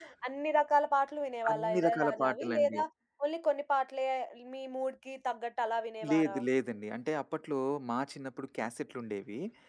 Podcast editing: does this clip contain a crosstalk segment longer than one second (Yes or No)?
Yes